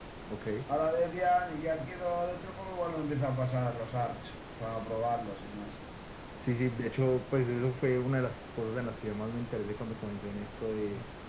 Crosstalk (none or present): none